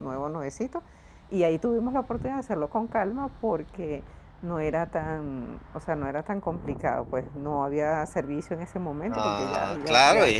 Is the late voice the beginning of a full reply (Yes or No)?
Yes